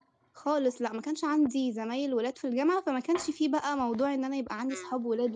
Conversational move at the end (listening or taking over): taking over